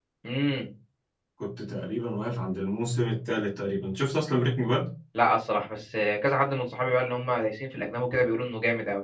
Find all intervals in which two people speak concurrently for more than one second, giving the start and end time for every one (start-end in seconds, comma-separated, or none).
none